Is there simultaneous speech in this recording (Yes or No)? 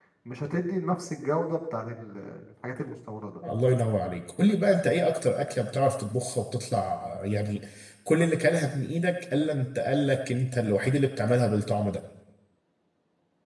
No